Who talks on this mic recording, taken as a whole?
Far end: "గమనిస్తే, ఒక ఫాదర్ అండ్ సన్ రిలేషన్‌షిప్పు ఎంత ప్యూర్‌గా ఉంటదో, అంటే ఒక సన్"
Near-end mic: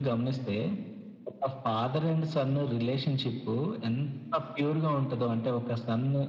echo only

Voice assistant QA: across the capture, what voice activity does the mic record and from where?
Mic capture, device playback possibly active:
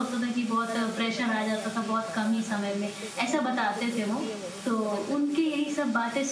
both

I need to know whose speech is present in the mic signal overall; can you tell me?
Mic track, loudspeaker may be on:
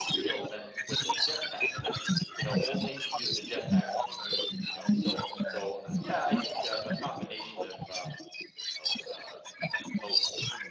both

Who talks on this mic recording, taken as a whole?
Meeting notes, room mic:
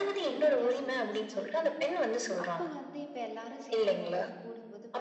both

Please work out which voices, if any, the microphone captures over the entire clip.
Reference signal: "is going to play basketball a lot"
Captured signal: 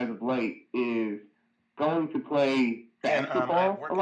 both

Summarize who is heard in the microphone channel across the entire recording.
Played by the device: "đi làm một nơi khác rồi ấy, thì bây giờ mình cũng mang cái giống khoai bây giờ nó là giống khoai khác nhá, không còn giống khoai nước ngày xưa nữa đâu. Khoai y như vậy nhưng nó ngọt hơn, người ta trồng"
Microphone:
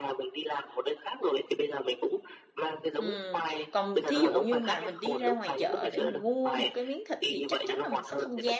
both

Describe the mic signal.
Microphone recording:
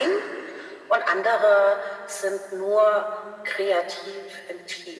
echo only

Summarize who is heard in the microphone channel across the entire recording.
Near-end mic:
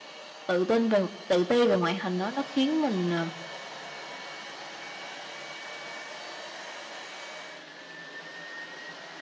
user only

